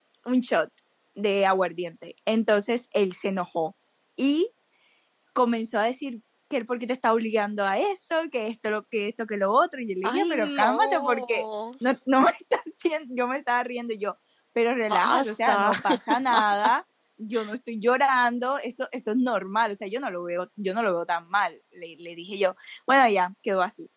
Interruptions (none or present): present